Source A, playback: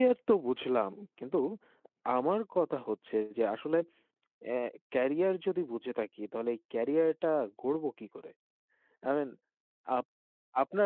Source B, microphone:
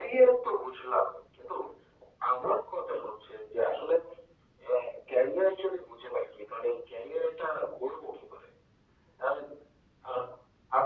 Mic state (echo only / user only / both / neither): echo only